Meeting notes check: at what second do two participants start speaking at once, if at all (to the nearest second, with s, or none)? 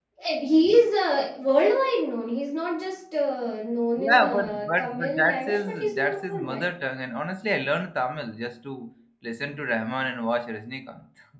4 s